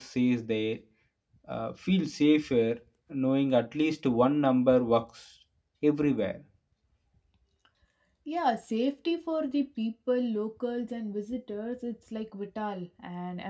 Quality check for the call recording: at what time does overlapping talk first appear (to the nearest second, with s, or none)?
none